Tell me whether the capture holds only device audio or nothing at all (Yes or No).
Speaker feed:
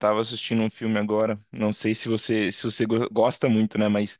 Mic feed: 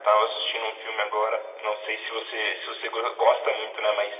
Yes